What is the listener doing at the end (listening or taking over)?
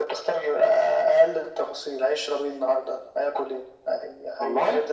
listening